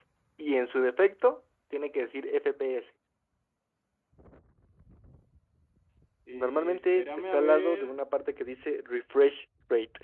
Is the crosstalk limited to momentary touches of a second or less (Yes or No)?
No